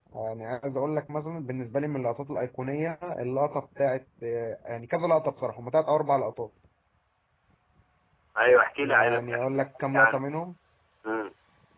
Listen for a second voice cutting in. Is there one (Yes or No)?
Yes